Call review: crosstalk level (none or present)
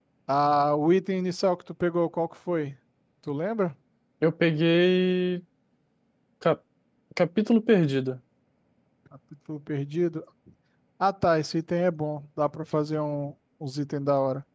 none